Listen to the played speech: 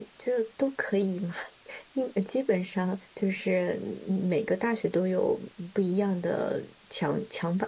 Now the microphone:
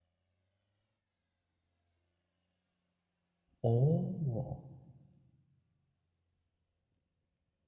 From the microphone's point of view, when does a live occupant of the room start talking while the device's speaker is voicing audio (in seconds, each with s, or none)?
3.6 s